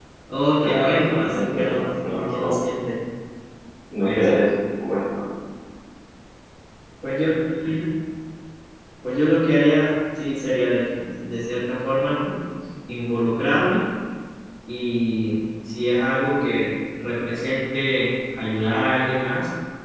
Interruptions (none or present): present